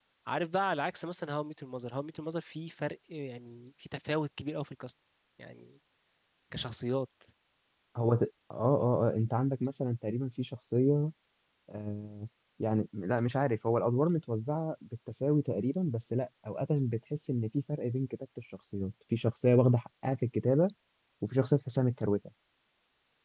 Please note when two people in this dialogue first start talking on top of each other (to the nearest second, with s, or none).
none